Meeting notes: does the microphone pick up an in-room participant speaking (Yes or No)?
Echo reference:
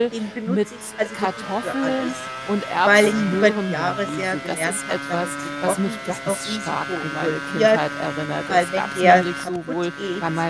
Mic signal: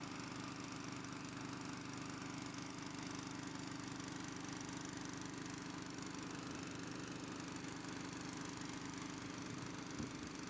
No